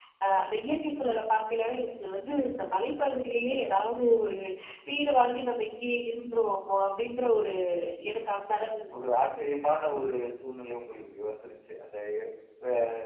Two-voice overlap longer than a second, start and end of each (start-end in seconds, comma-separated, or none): none